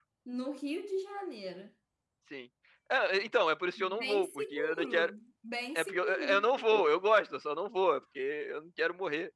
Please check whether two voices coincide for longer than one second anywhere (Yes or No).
Yes